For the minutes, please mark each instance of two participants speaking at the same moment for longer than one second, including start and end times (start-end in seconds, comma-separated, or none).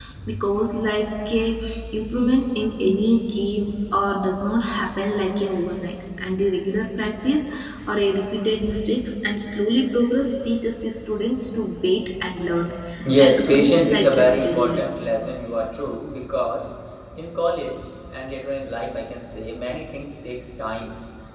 13.2-14.8